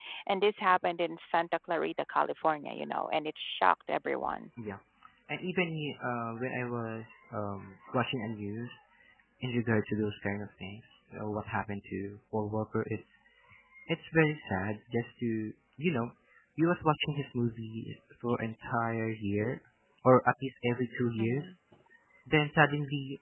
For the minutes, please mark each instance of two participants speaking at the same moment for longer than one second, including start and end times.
none

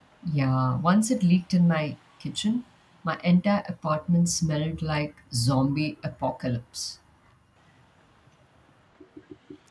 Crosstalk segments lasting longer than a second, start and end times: none

